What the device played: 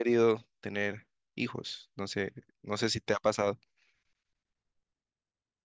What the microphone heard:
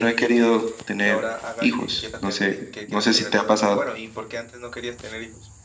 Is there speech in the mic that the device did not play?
Yes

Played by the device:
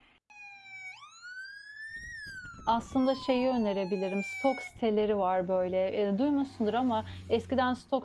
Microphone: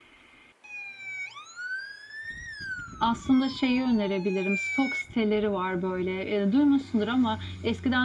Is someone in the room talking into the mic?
No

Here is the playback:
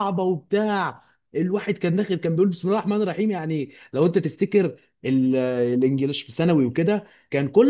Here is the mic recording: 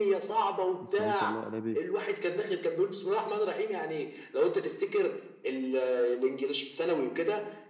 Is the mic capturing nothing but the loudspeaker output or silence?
No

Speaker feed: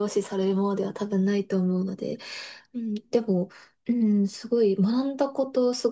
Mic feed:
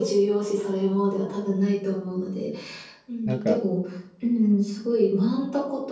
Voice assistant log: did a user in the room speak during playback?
Yes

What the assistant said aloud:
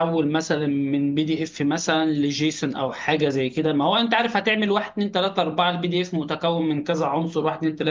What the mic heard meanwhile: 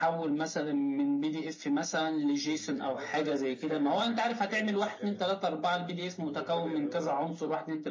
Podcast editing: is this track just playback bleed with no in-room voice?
No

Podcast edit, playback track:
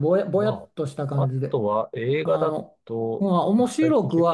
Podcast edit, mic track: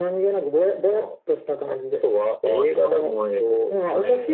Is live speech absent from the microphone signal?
No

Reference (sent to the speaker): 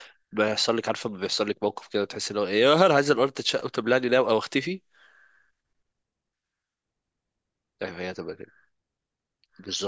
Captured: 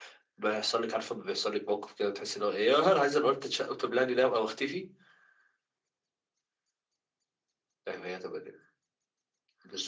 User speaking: No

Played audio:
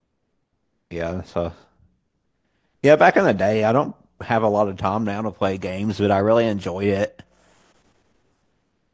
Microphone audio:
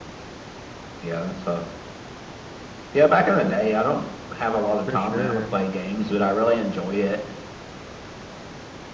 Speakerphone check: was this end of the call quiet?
No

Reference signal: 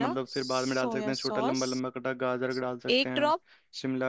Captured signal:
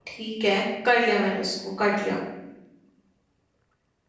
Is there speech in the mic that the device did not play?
Yes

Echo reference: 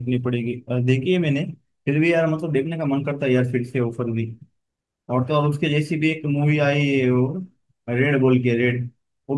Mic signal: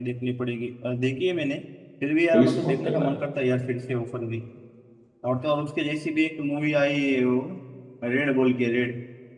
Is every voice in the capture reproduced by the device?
No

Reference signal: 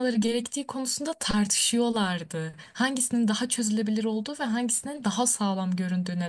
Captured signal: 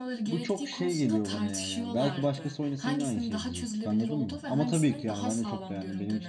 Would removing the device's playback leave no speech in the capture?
No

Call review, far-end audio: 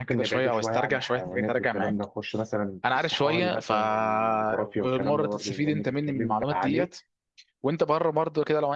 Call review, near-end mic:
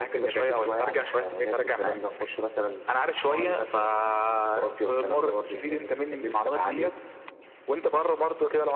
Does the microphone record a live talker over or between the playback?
No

